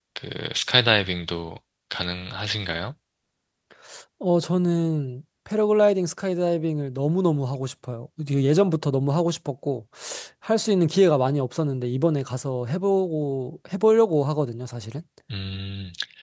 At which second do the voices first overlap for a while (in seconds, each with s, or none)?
none